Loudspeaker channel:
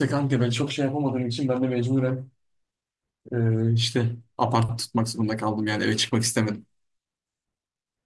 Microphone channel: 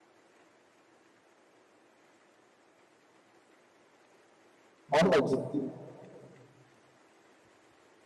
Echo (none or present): none